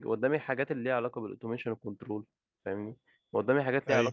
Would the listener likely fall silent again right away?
Yes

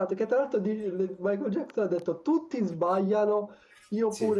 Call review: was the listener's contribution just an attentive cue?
Yes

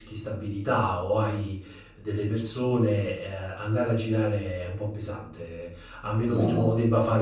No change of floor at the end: Yes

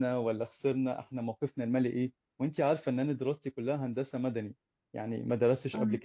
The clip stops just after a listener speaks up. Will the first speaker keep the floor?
Yes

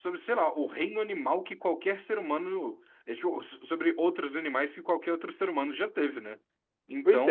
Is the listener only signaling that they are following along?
Yes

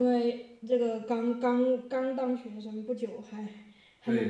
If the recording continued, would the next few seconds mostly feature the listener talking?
Yes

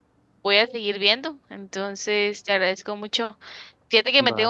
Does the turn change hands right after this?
No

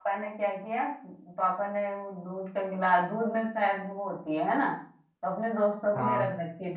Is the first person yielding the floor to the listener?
No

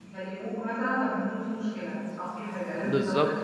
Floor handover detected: Yes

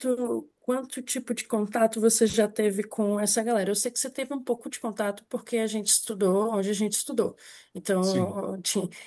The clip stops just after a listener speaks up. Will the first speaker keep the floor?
Yes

